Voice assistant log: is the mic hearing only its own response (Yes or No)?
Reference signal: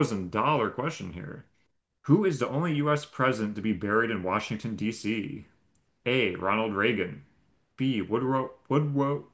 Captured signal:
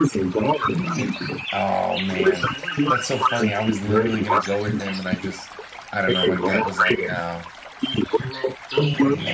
No